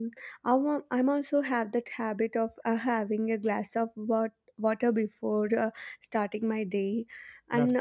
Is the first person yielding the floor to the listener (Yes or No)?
No